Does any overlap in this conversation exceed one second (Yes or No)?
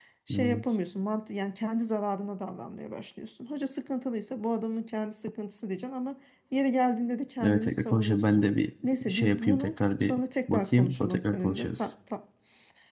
Yes